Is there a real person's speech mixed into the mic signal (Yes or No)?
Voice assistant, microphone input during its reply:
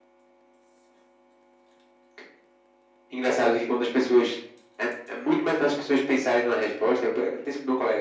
No